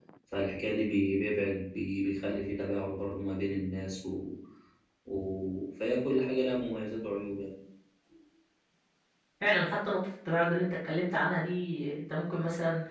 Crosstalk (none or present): none